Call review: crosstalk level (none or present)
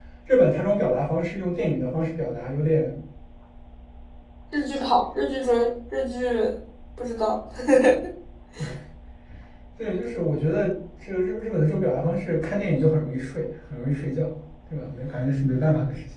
none